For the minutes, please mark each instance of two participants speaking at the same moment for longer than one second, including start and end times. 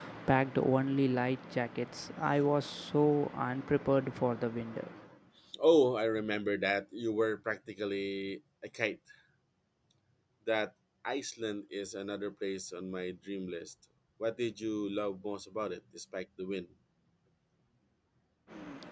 none

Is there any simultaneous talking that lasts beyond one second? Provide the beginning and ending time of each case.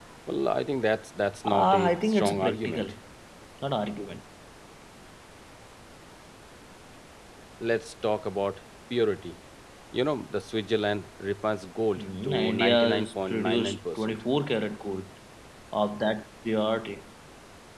1.4-2.9, 12.0-14.2

